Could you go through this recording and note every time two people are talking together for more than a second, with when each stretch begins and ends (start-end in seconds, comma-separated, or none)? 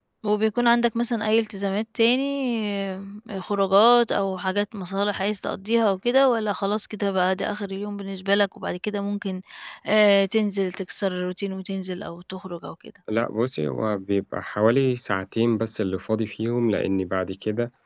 none